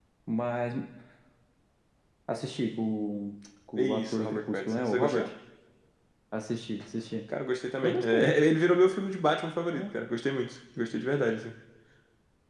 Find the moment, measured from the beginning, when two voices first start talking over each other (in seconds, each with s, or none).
3.8 s